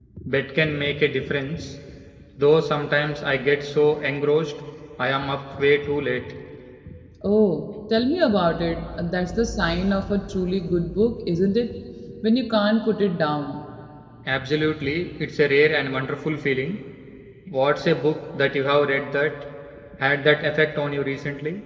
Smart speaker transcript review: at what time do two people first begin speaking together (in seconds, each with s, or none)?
none